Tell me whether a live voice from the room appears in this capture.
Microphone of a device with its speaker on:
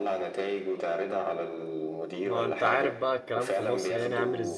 Yes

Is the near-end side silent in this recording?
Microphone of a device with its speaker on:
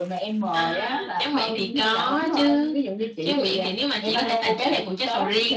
Yes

